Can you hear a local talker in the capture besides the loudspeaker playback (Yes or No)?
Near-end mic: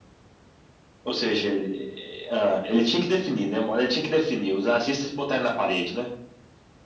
No